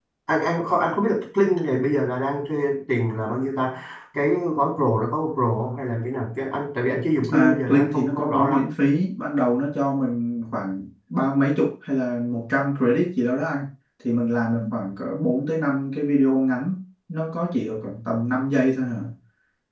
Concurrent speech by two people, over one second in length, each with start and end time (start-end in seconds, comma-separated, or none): 7.3-8.6